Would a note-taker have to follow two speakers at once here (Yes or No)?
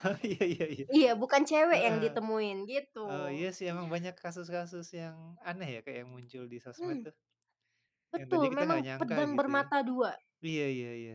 Yes